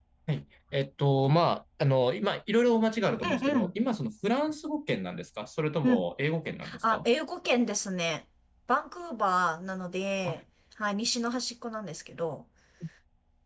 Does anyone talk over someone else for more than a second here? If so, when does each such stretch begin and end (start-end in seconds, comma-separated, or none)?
none